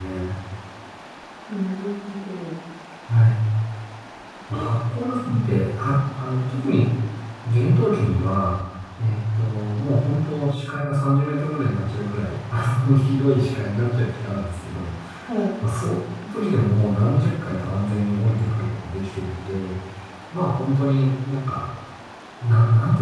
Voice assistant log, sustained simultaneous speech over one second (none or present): none